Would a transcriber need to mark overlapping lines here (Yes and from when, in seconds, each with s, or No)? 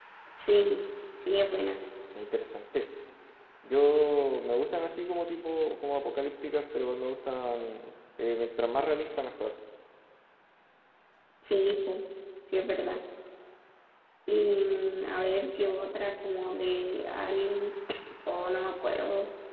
No